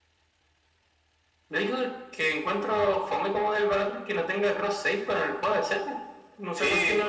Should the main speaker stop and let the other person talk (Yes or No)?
Yes